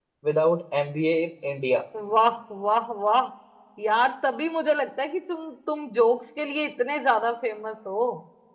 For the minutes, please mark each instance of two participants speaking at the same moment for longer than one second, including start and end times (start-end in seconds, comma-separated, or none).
none